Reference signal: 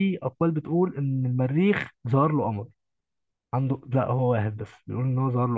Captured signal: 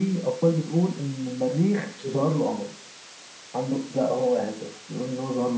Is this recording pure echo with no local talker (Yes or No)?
No